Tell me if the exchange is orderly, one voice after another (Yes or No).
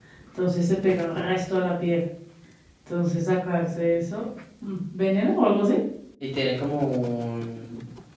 Yes